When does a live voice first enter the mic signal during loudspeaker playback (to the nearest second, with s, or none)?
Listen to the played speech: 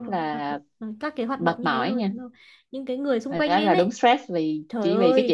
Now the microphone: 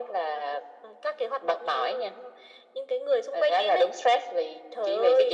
none